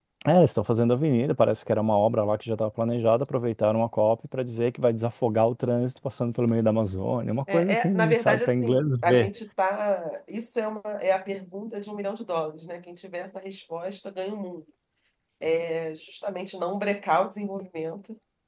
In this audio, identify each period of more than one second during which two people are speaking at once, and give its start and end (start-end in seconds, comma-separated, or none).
7.5-9.3